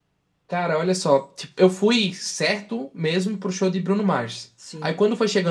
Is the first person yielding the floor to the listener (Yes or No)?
No